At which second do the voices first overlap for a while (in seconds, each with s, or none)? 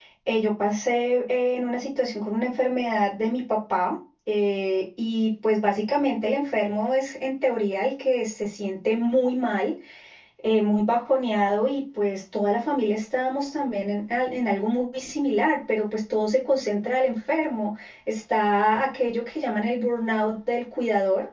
none